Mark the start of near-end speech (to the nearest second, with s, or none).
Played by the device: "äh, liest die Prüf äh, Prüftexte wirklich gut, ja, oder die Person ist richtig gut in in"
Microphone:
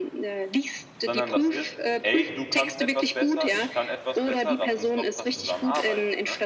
1 s